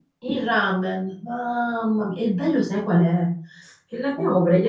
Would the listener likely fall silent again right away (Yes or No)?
Yes